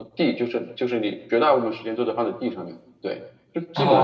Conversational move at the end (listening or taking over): taking over